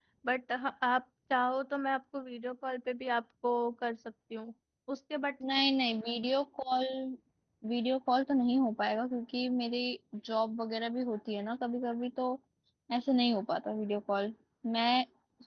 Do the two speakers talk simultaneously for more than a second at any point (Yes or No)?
No